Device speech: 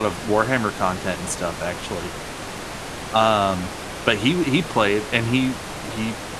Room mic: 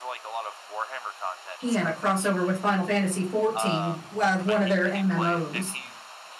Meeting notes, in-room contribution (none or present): present